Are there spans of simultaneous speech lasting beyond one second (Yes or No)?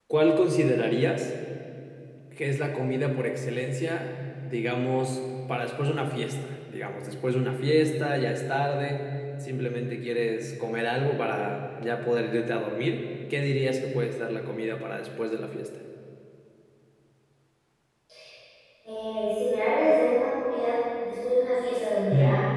No